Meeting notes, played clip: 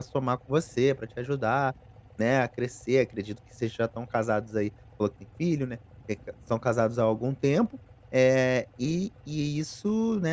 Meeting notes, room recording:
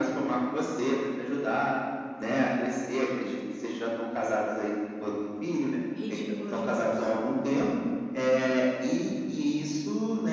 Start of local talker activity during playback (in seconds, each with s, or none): 5.9 s